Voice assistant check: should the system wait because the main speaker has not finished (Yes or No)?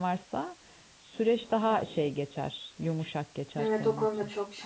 No